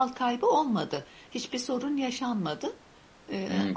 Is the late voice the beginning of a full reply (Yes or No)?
Yes